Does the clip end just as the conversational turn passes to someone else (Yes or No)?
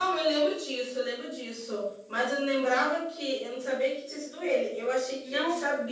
No